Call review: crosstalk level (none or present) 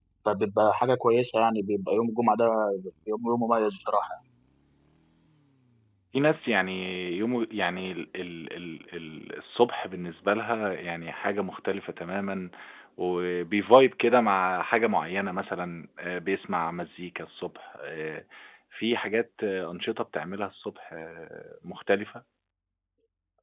none